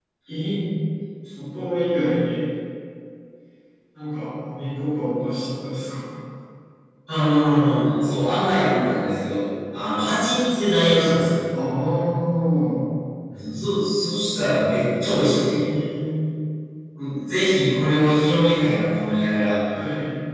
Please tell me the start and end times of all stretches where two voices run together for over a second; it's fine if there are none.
none

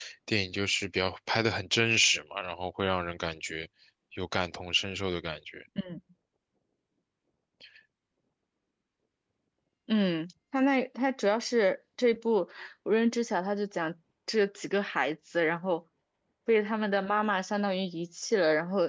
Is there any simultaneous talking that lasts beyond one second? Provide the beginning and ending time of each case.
none

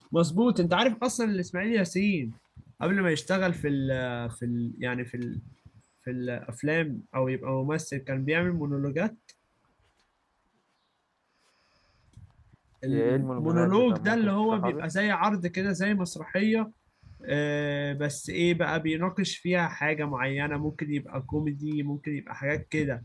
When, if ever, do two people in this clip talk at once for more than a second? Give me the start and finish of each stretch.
12.9-14.8

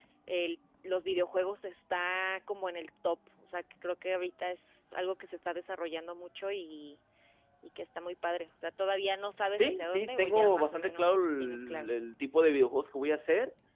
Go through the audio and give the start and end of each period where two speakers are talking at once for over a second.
9.6-11.9

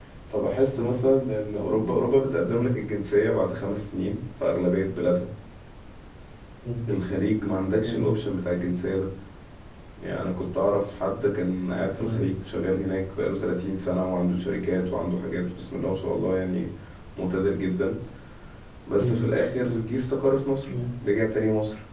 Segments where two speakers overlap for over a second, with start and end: none

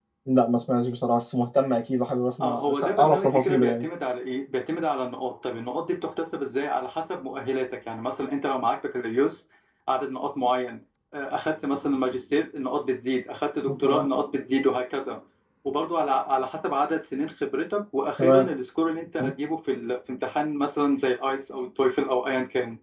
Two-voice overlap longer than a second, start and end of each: 2.4-3.8

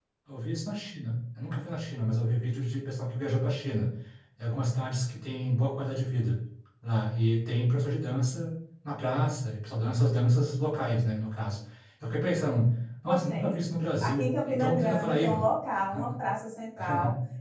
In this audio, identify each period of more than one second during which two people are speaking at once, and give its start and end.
14.0-15.4

